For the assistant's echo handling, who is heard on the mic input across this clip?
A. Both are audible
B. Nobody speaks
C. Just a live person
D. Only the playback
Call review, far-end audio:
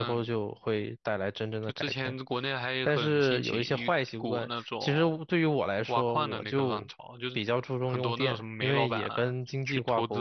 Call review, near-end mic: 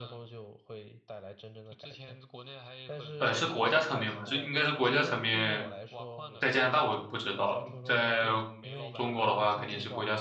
A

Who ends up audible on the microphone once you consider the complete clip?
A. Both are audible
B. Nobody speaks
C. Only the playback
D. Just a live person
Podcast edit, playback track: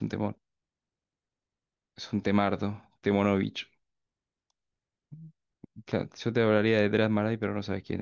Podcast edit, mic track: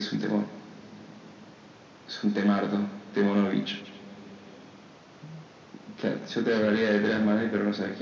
A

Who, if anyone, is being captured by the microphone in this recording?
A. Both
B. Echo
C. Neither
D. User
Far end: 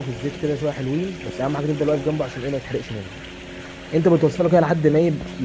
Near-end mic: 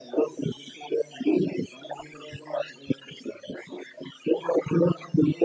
B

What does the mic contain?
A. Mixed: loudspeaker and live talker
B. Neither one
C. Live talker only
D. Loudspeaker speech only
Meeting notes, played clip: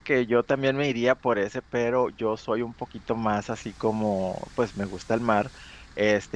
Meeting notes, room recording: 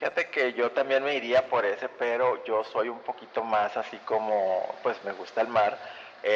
D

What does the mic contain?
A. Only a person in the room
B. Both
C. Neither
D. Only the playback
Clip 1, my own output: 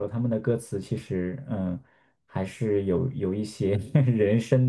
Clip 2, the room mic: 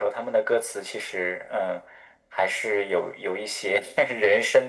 D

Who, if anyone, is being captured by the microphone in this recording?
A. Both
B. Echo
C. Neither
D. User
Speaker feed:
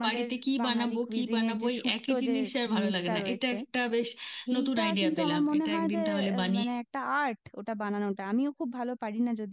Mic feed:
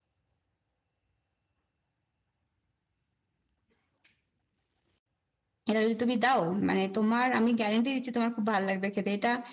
D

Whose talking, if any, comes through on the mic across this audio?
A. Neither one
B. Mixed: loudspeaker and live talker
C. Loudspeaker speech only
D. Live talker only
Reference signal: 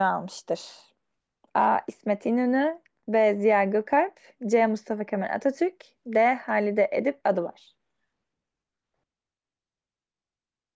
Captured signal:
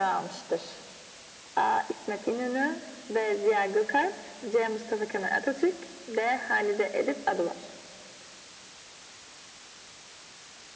C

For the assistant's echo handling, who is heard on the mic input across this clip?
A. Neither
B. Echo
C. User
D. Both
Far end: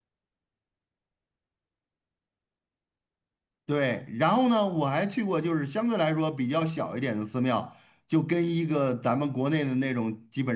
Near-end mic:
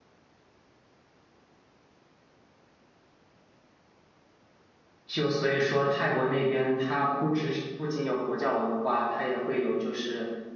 C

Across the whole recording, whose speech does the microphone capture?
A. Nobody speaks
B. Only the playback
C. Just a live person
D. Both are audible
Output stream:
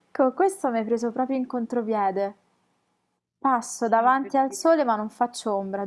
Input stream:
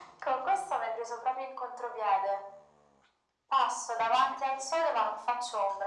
B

